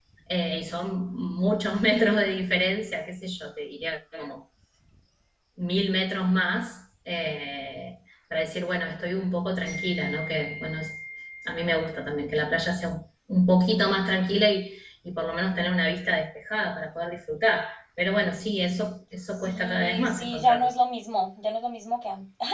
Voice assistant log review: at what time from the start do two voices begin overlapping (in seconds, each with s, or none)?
19.4 s